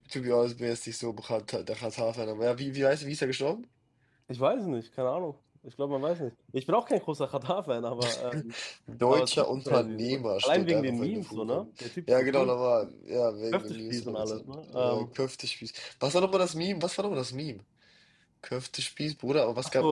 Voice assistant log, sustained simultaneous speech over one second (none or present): present